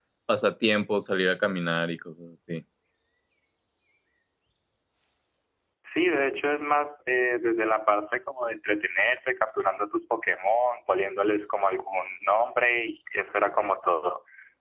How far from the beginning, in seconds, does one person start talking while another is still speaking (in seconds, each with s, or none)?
none